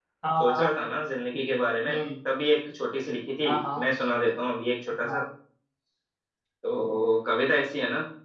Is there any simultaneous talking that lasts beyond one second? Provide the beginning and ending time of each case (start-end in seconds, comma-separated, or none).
none